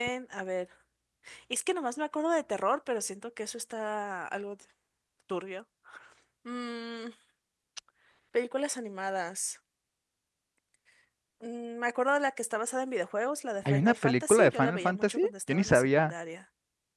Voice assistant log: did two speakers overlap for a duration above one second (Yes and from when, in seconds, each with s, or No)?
Yes, from 13.7 s